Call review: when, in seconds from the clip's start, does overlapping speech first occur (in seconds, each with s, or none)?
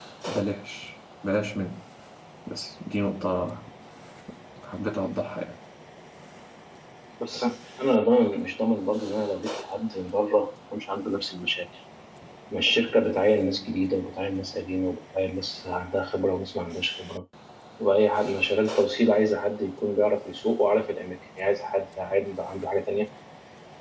none